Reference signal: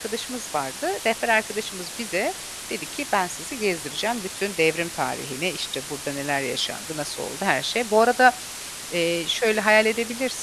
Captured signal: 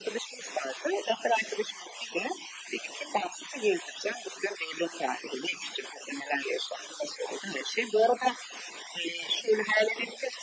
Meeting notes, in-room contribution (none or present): none